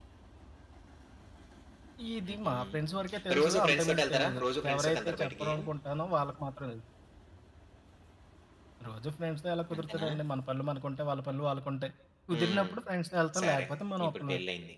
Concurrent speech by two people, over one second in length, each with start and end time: 3.4-5.5

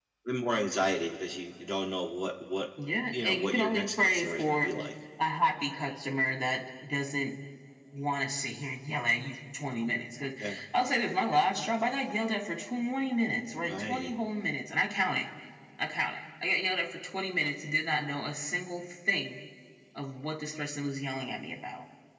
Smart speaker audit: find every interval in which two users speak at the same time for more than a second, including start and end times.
3.1-4.7

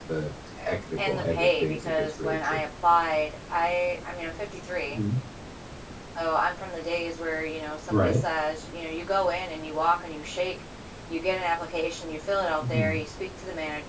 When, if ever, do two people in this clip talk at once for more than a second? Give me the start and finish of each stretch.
1.0-2.6

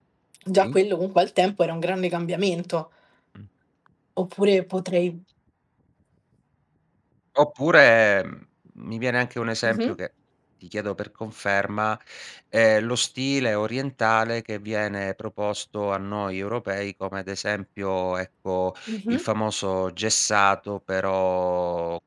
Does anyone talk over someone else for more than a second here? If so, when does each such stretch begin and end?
none

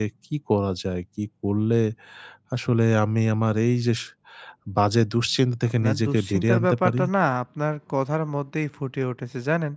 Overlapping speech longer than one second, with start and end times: 5.8-7.0

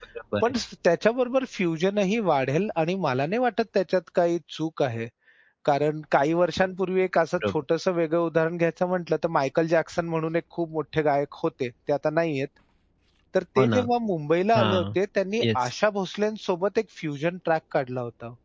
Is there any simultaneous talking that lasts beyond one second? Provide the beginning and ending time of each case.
none

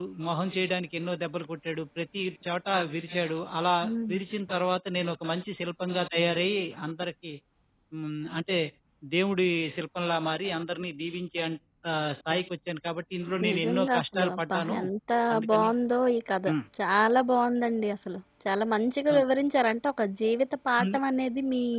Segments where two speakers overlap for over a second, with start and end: 13.5-14.8

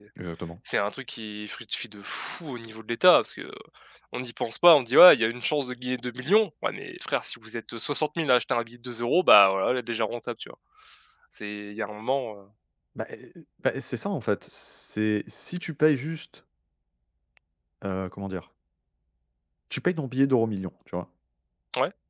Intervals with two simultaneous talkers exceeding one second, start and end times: none

